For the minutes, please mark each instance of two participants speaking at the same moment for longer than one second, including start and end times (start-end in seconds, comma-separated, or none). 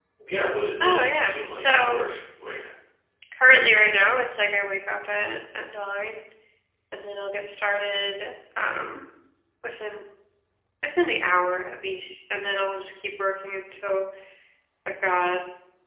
0.8-2.0